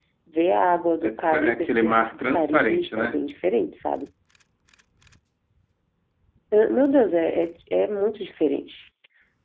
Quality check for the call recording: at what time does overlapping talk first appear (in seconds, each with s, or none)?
1.0 s